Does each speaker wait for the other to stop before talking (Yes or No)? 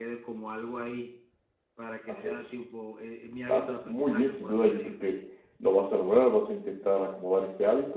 No